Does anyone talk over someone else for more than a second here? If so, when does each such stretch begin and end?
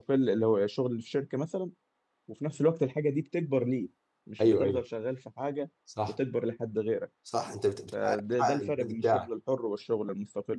7.9-9.2

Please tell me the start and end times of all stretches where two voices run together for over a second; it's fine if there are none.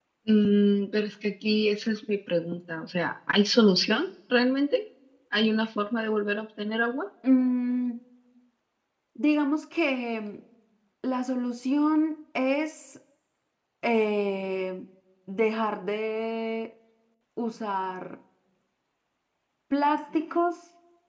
none

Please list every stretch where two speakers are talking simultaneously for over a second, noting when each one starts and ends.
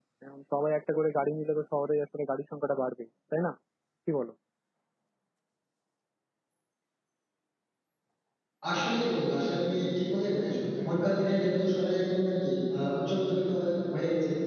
none

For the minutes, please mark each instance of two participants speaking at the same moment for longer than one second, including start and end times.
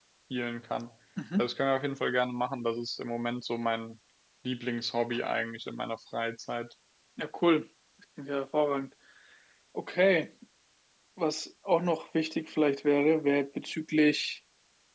none

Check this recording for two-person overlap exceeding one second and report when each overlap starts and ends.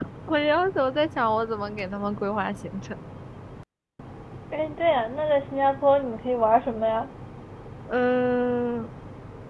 none

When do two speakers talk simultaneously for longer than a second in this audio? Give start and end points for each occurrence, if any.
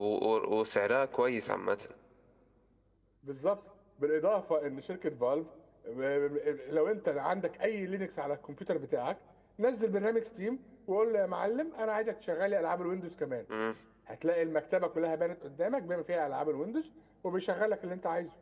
none

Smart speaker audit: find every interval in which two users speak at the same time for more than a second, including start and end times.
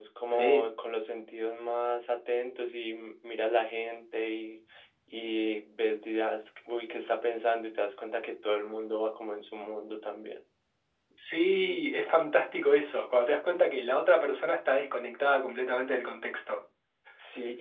none

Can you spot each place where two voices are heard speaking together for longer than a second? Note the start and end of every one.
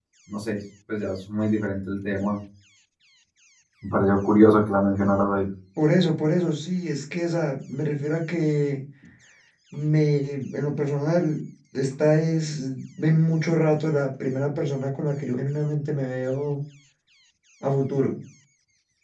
none

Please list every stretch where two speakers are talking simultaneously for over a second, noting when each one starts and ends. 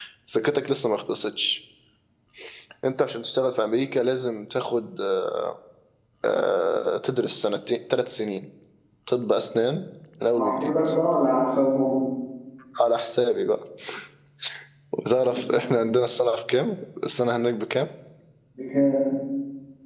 none

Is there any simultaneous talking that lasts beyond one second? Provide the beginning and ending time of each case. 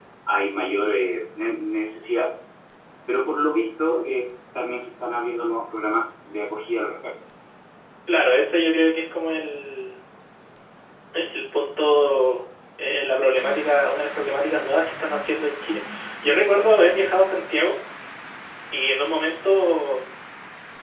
none

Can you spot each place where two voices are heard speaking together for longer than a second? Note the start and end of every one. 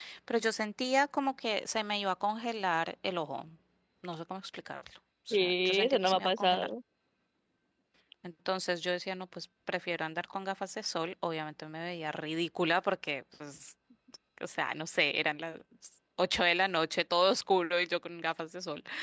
5.3-6.7

